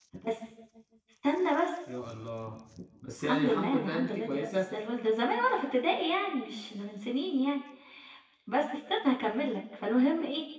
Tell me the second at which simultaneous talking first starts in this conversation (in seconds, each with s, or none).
3.2 s